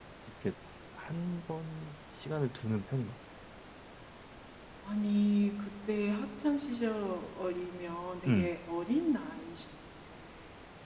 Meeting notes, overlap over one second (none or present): none